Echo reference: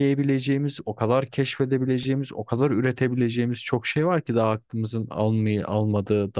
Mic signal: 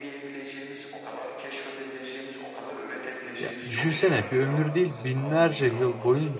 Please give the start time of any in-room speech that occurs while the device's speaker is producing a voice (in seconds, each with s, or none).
3.4 s